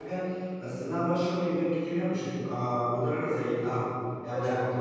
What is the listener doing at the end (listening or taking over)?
listening